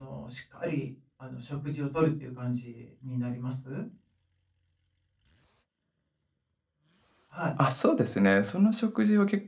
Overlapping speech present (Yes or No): No